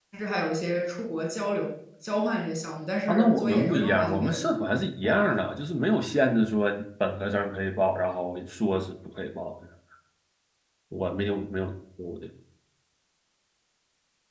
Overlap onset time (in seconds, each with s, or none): 3.1 s